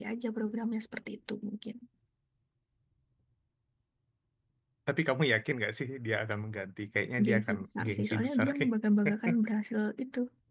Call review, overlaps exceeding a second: present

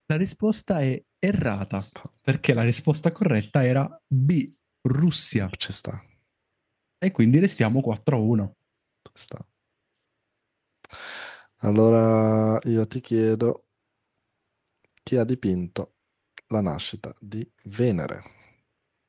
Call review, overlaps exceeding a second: none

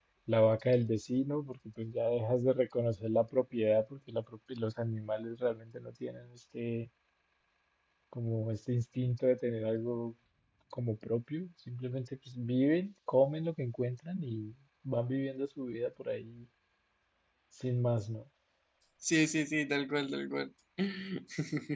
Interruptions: none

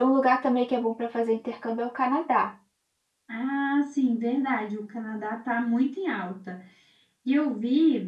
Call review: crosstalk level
none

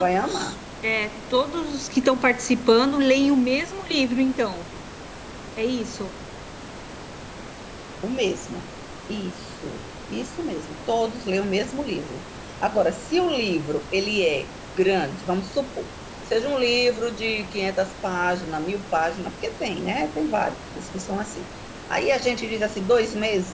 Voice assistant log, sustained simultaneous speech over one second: none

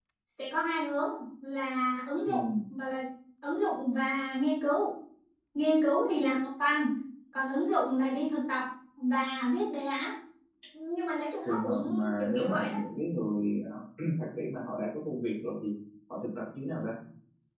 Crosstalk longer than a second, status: present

